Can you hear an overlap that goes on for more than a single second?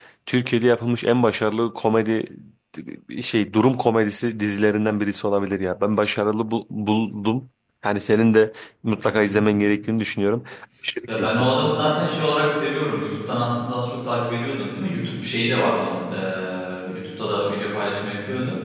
No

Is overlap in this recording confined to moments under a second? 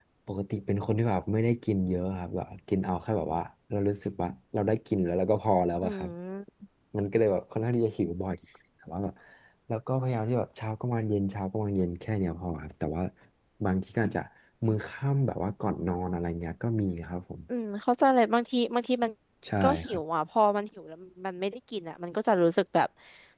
Yes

